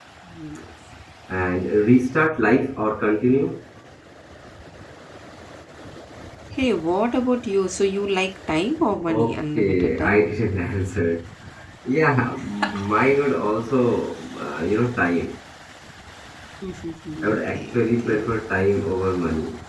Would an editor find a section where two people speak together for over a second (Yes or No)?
Yes